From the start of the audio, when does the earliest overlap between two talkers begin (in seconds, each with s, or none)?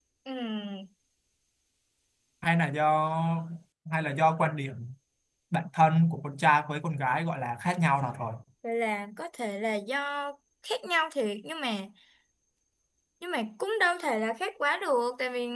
none